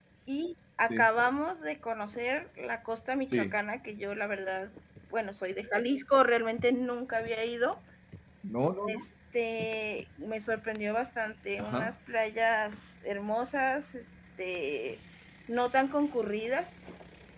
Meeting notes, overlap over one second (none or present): none